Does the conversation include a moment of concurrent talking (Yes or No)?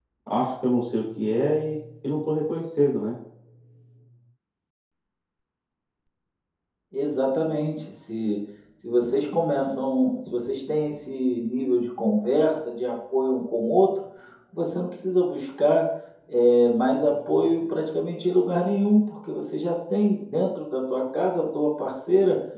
No